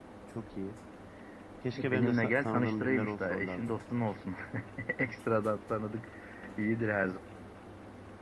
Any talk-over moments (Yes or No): Yes